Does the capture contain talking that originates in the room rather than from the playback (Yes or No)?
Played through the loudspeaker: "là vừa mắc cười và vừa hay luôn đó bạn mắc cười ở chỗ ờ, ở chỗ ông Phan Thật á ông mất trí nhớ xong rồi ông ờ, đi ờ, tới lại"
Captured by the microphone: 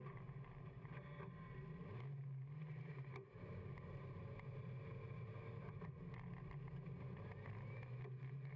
No